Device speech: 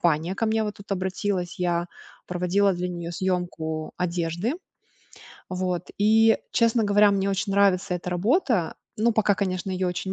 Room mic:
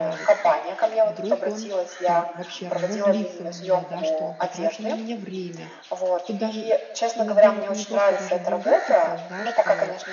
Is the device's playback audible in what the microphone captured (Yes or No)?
Yes